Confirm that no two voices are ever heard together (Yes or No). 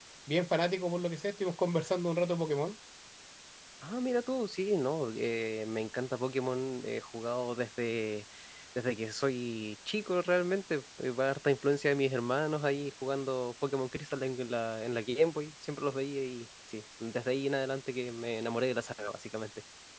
Yes